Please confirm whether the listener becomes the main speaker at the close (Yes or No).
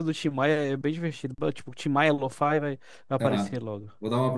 Yes